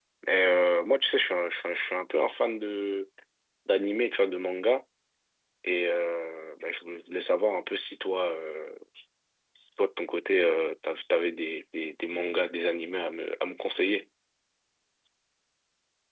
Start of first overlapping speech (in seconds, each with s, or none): none